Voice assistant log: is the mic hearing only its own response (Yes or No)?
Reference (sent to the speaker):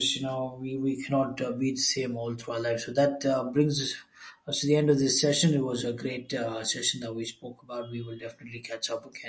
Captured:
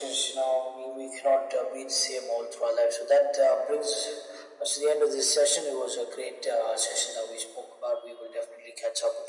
Yes